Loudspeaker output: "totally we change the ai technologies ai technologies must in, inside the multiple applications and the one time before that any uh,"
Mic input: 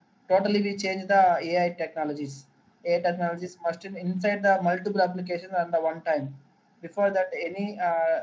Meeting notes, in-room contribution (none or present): none